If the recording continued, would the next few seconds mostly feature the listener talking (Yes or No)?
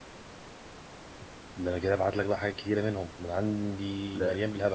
No